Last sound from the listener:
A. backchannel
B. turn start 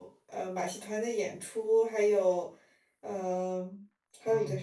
A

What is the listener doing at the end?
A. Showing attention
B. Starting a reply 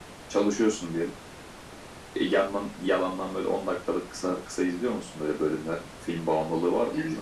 B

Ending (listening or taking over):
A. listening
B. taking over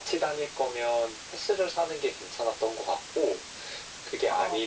A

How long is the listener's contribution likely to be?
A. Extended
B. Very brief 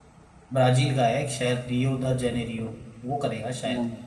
B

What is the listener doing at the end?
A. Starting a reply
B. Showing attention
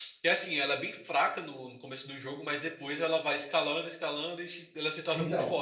A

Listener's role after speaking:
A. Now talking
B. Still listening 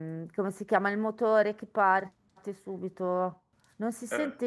B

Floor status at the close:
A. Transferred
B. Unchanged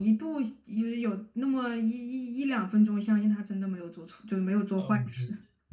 A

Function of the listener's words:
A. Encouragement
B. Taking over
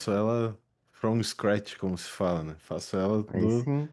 A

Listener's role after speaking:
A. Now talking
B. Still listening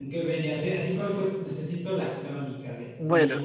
B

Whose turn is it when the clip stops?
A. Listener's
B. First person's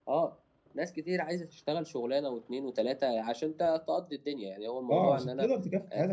A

